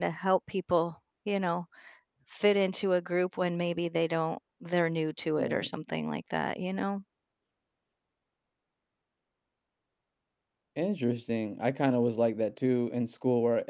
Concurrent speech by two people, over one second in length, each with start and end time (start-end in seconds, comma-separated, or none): none